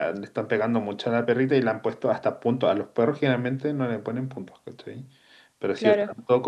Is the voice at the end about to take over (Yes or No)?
No